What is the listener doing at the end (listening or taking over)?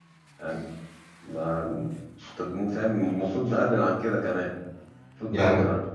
listening